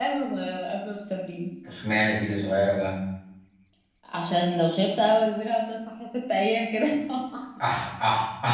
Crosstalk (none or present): none